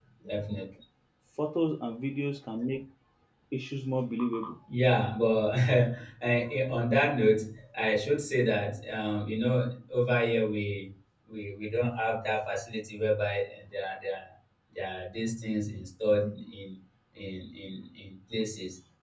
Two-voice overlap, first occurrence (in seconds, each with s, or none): none